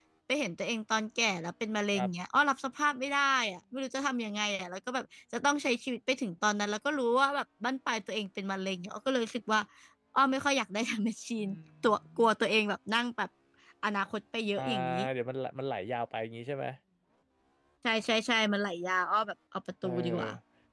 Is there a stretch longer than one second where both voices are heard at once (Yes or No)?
No